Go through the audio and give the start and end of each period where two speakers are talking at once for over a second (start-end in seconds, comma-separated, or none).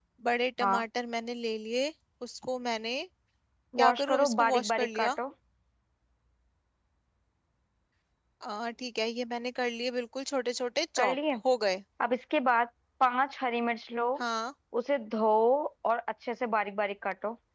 3.8-5.1